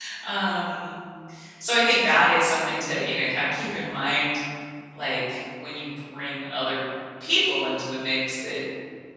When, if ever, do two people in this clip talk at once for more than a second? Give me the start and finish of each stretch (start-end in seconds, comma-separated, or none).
none